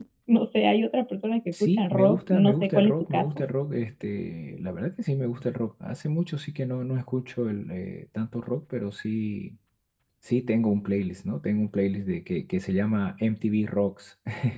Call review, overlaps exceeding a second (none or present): present